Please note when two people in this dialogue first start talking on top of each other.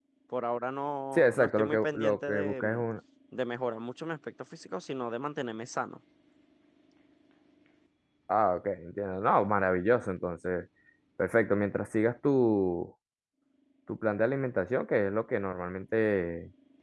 1.1 s

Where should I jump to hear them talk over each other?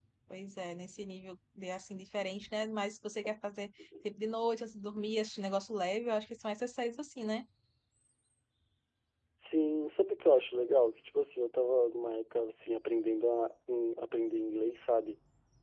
none

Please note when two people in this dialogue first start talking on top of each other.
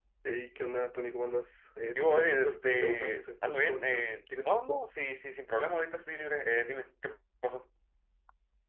1.9 s

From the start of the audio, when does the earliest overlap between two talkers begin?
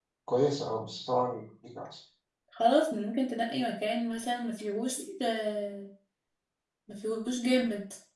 none

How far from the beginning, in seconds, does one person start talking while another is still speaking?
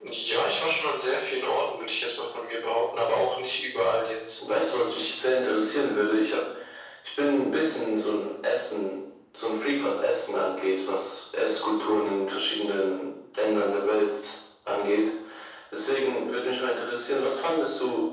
none

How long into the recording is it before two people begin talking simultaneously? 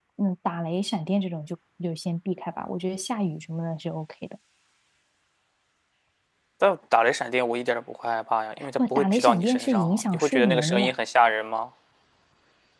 8.6 s

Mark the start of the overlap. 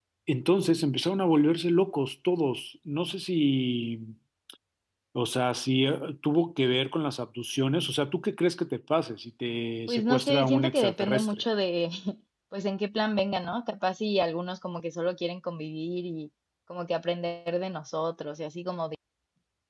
9.9 s

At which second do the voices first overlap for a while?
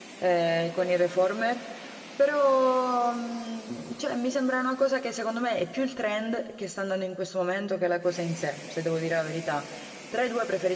none

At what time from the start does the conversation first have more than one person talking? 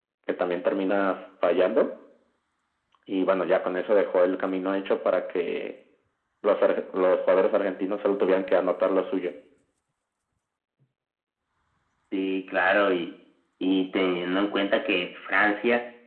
none

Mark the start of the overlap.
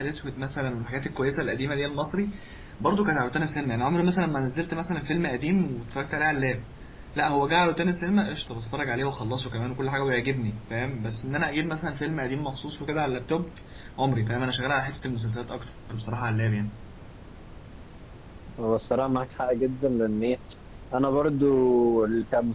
none

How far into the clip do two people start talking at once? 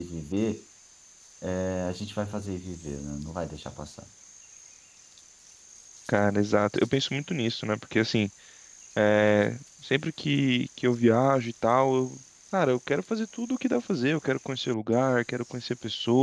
none

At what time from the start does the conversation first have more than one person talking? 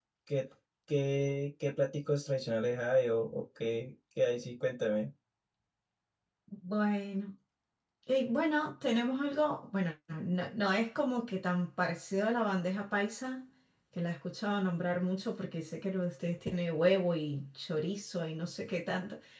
none

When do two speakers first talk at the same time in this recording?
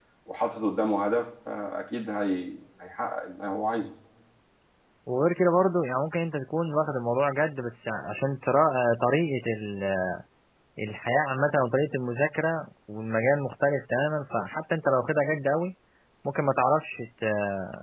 none

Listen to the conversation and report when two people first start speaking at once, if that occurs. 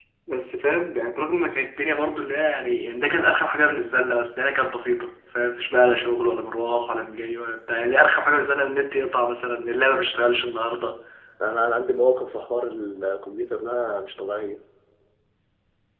none

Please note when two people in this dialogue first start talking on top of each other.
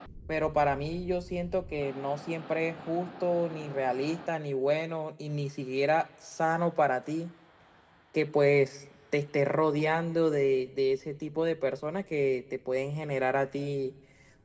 none

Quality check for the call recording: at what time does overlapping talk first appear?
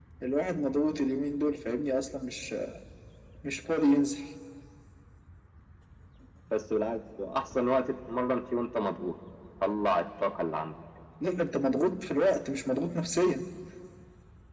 none

